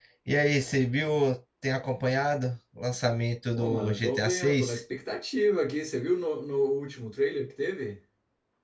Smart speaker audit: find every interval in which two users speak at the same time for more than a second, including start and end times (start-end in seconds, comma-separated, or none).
3.6-4.8